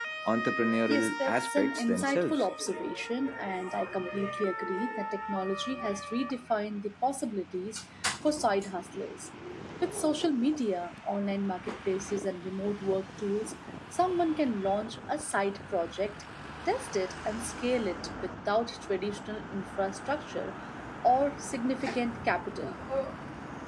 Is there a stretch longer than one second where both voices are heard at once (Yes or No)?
Yes